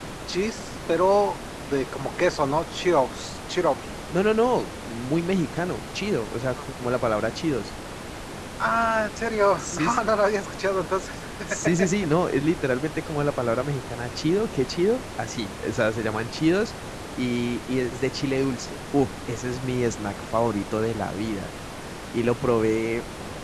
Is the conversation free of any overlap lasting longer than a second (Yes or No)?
Yes